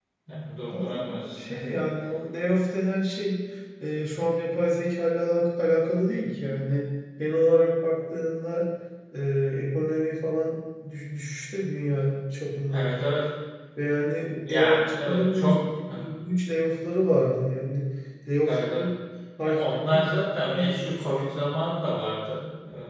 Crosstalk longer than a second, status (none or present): present